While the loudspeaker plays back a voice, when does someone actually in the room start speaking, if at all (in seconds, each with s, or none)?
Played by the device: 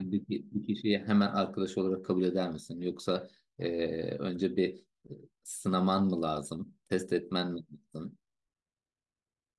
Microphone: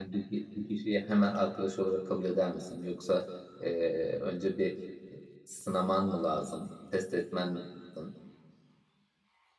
none